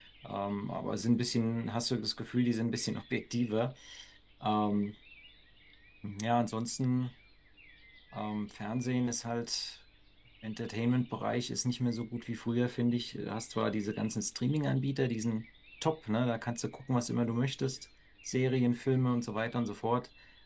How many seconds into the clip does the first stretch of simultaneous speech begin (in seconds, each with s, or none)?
none